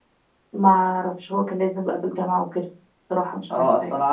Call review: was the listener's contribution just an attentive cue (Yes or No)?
No